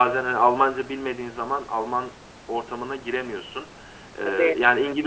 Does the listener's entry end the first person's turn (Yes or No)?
No